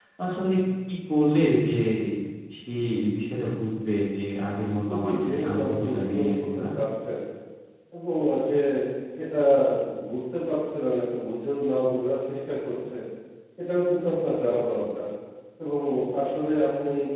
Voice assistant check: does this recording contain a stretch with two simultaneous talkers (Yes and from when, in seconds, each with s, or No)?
Yes, from 4.9 s